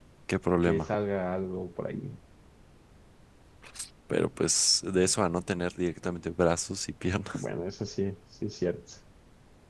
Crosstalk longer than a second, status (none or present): none